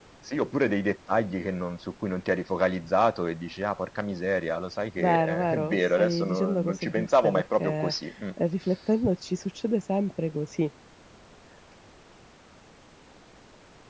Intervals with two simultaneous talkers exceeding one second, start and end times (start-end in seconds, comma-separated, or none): 5.0-7.6